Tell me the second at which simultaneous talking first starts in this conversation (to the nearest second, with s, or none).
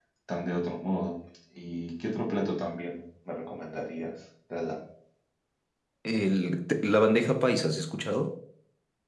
none